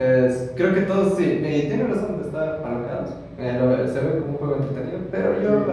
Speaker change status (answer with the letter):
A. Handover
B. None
B